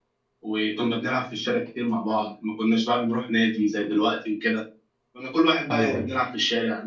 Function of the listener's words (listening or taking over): listening